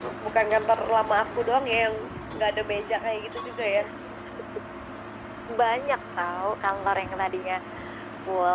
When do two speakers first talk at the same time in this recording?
none

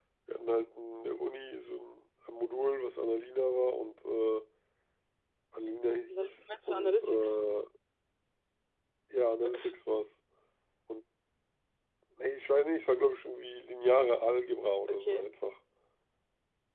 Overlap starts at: 6 s

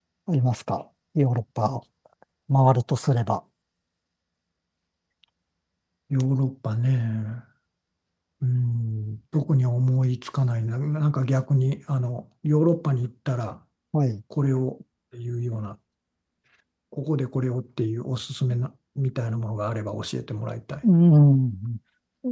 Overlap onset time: none

